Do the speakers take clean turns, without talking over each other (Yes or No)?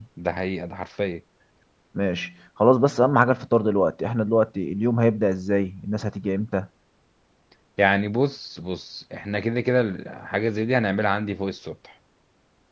Yes